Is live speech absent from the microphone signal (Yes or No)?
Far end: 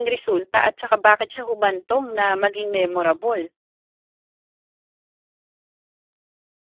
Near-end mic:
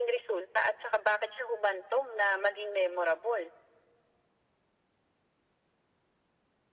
Yes